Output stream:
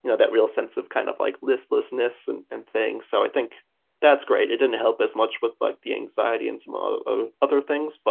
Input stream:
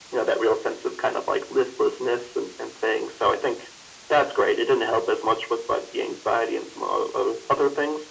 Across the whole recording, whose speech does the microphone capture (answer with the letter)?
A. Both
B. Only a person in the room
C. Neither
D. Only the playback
D